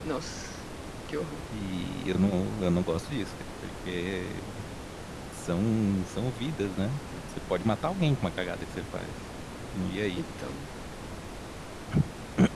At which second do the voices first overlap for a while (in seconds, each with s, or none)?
none